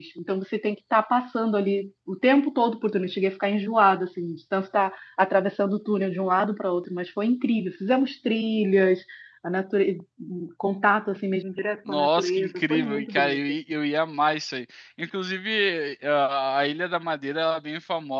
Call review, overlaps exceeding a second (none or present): present